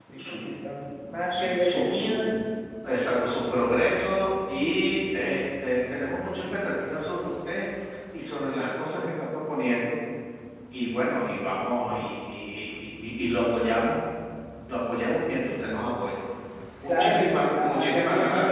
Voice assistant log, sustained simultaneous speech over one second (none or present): present